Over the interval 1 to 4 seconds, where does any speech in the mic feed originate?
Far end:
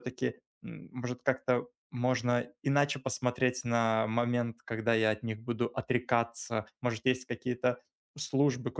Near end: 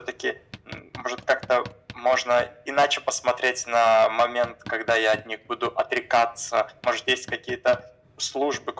echo only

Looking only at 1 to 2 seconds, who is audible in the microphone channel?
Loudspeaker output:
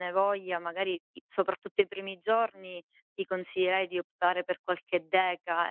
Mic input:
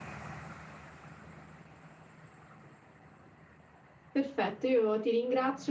neither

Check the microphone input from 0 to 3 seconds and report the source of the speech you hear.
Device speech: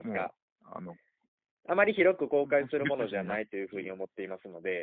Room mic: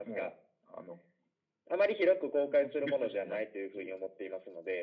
echo only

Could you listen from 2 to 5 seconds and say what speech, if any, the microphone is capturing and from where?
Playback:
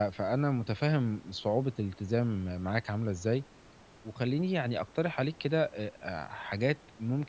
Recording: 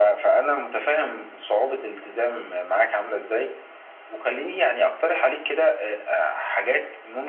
echo only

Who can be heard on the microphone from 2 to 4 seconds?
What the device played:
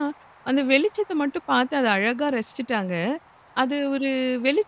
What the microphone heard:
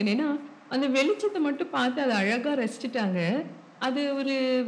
echo only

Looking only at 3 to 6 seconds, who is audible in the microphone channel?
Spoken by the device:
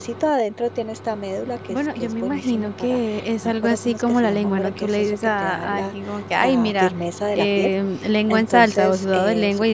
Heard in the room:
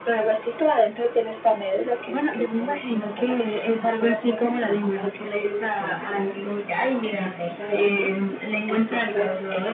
echo only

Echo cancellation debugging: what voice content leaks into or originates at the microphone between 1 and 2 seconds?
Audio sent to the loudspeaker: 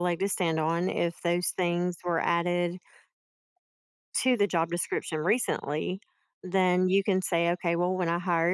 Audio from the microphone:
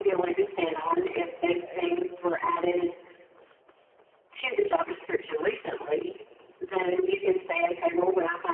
both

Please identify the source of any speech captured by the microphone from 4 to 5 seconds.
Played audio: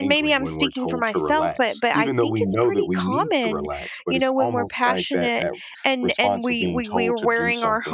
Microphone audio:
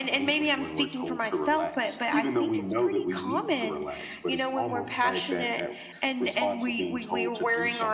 echo only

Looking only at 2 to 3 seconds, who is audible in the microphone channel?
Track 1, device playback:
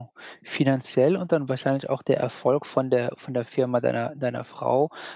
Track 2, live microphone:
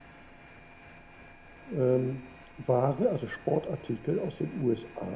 user only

